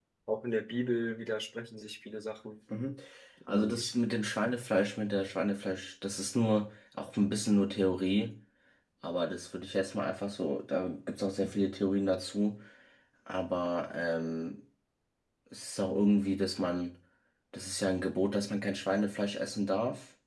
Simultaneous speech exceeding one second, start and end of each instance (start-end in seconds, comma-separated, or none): none